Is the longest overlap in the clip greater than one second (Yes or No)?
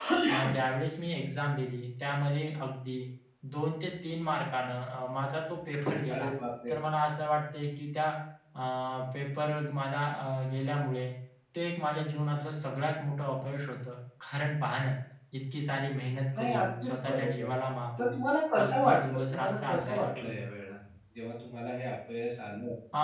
Yes